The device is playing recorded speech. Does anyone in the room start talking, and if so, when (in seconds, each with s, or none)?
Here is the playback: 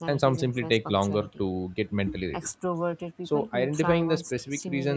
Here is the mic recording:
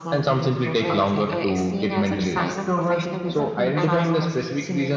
0.8 s